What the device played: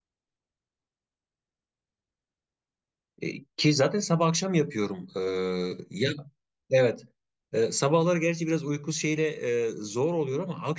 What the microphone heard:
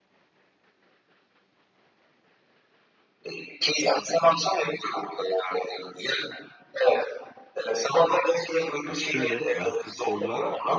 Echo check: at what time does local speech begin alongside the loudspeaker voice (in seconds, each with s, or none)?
8.8 s